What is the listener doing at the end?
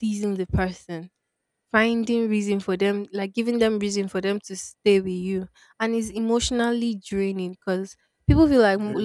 listening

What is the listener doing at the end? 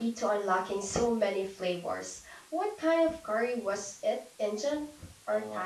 taking over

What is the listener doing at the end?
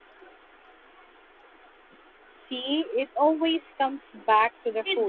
taking over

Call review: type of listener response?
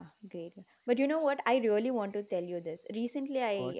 listening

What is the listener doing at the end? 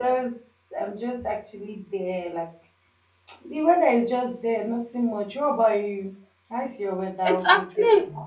taking over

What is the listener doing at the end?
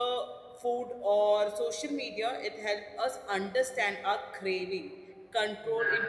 listening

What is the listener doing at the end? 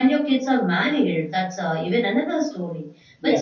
listening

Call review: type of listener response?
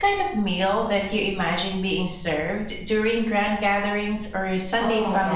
taking over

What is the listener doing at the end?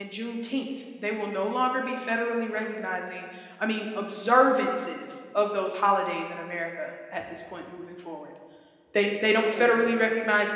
listening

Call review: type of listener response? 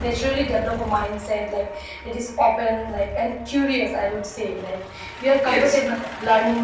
listening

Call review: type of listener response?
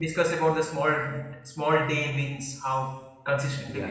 taking over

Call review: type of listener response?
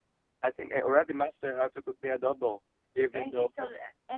taking over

